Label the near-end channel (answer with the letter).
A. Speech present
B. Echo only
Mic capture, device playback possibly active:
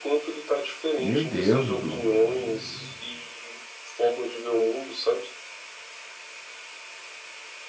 A